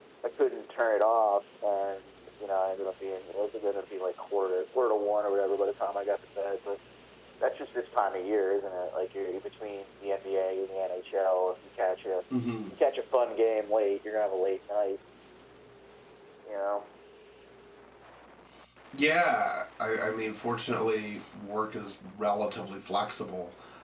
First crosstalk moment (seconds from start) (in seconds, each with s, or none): none